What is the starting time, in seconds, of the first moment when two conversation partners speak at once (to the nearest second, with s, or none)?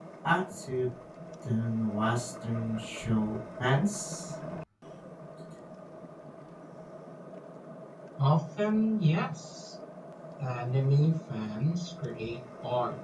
none